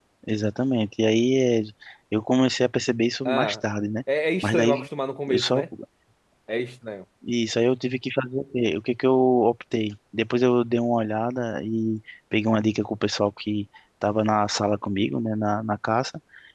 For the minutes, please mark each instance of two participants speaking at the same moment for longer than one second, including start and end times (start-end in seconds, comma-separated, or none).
none